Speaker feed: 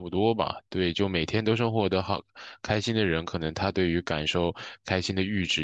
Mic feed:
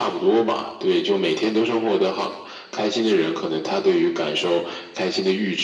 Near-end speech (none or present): none